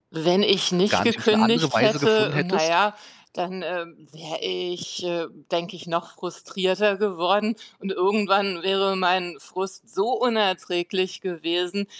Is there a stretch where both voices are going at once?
Yes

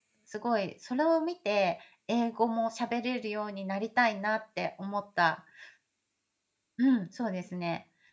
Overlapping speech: No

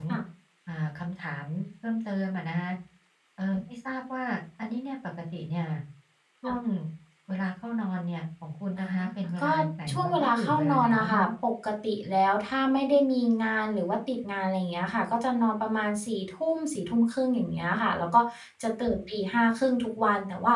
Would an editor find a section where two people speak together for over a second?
Yes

